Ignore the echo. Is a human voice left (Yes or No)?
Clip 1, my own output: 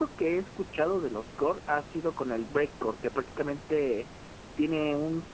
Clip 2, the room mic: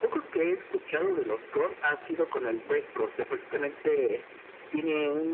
No